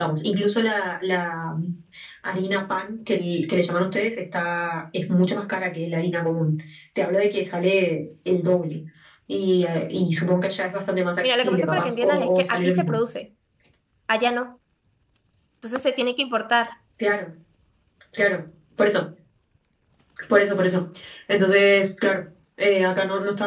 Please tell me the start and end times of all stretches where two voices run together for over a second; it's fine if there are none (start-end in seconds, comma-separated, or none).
11.2-12.9